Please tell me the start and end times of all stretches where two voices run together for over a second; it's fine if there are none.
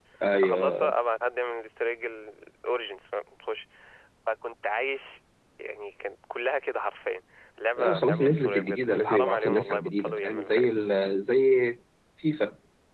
7.8-10.8

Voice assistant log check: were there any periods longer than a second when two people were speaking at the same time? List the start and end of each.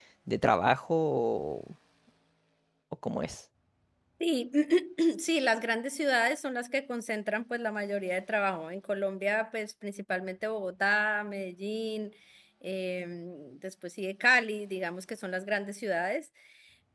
none

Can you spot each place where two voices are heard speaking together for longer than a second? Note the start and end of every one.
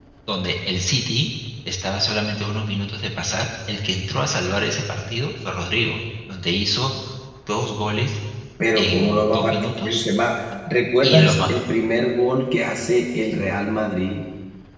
8.8-10.0

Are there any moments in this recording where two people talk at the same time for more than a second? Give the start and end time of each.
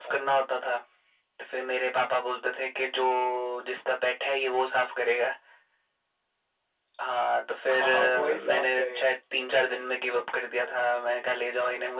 7.7-9.0

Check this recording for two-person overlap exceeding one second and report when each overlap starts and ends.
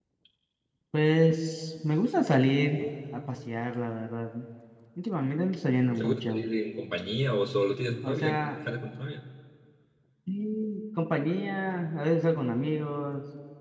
none

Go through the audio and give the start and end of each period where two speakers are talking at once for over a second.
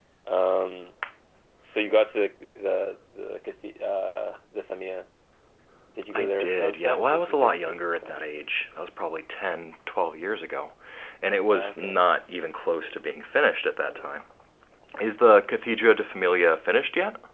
6.1-8.2

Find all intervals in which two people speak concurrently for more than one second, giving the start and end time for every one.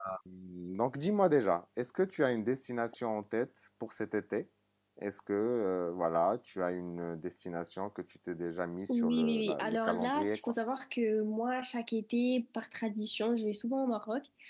8.9-10.5

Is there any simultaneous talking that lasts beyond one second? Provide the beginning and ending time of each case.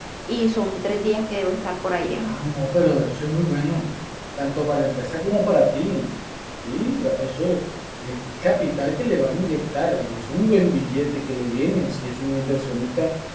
none

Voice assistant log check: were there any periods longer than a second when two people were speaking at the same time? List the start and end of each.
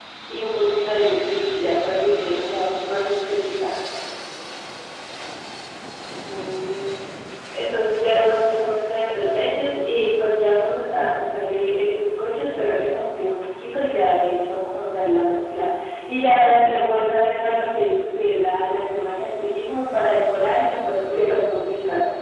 none

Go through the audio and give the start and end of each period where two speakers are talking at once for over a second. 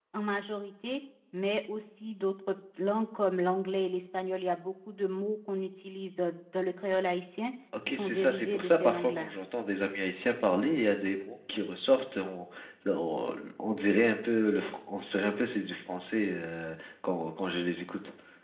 7.9-9.3

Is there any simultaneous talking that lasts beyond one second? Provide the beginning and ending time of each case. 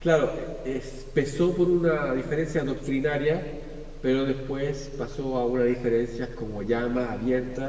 none

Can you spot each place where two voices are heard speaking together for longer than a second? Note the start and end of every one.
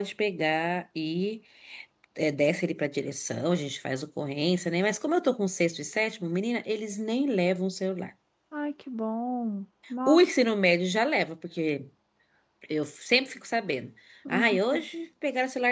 none

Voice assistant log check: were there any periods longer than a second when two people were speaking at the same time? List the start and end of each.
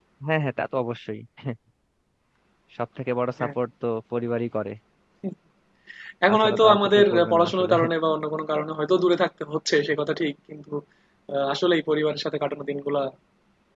6.3-7.7

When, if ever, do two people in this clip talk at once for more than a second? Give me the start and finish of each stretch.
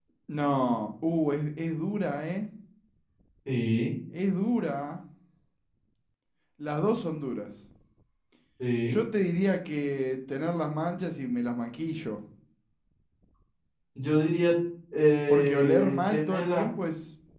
15.3-16.6

